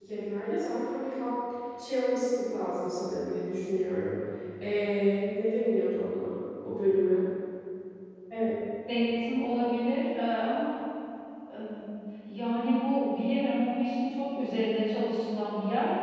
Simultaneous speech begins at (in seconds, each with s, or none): none